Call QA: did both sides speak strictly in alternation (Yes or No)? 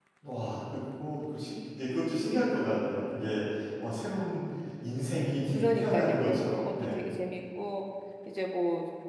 No